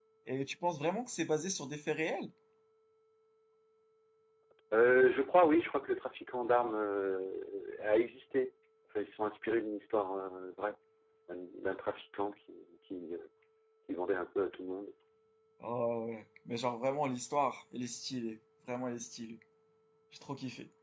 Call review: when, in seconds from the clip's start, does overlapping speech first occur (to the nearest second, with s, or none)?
none